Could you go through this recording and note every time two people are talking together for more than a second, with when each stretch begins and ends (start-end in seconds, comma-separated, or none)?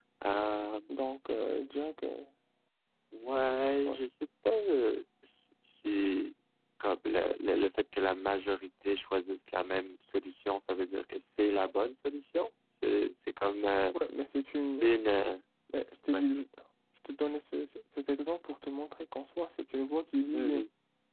none